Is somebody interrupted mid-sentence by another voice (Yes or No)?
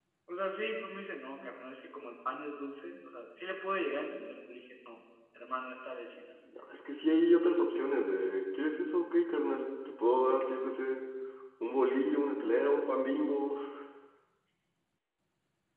No